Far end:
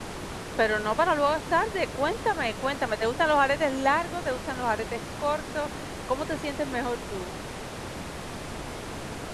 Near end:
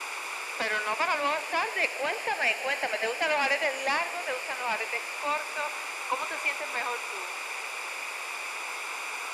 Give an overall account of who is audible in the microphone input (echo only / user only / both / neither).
echo only